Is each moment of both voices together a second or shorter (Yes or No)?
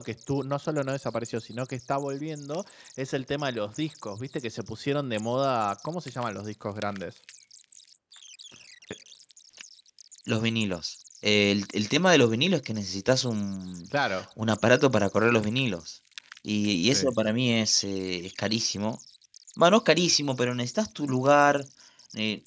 Yes